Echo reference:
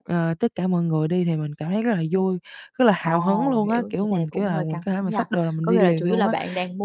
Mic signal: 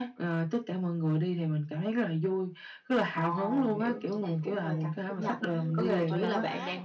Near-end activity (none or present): present